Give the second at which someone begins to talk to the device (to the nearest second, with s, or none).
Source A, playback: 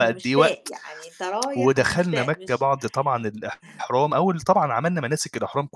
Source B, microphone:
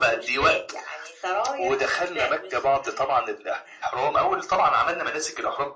none